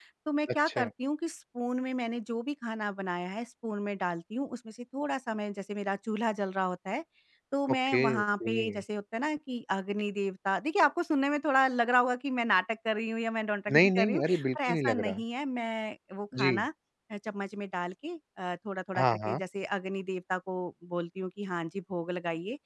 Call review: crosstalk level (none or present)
present